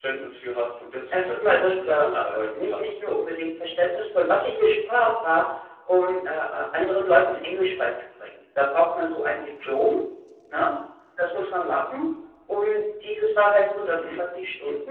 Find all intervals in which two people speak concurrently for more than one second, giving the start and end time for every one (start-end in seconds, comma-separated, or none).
1.1-3.2